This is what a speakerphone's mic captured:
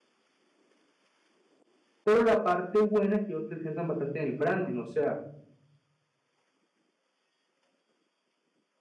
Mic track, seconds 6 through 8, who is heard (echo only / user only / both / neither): neither